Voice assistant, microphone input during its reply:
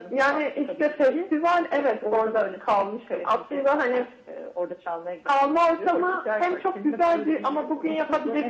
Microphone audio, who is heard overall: echo only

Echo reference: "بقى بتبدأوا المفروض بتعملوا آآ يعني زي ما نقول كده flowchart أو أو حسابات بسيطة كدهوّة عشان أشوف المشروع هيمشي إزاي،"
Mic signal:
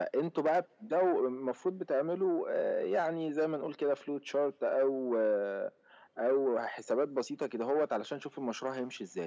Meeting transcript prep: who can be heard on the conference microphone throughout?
echo only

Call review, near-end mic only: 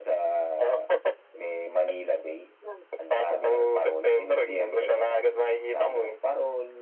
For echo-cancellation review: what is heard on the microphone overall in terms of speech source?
echo only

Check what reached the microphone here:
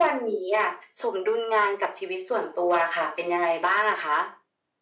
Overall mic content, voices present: echo only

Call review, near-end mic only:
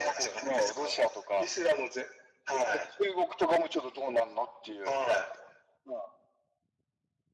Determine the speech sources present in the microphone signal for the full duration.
echo only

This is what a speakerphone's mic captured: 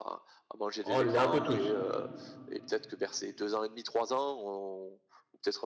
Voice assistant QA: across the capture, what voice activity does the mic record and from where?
both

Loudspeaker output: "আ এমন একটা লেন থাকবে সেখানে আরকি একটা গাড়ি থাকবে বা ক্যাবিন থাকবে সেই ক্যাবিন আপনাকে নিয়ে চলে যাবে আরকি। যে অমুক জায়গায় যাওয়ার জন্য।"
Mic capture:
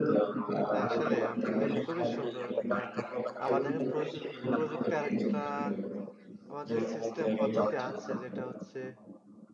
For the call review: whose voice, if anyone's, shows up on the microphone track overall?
both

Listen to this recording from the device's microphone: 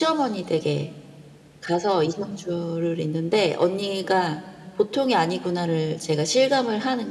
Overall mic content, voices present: echo only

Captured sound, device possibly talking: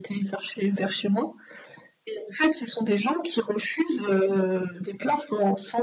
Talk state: echo only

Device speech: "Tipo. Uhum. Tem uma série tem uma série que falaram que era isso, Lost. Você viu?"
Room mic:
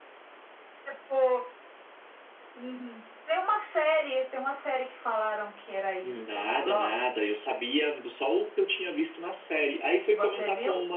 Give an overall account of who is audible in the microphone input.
both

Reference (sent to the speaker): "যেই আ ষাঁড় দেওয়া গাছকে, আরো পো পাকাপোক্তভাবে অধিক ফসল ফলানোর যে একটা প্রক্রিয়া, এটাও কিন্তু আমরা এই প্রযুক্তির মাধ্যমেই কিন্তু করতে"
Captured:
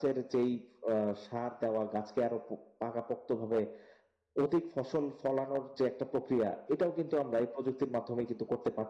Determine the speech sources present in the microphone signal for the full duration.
echo only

